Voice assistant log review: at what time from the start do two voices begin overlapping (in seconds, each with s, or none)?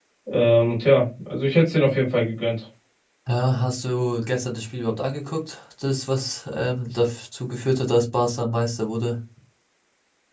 none